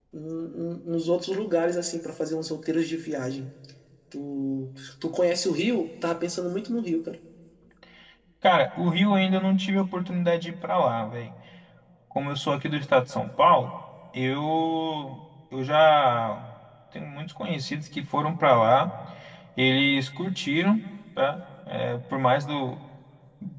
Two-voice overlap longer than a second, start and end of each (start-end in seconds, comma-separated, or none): none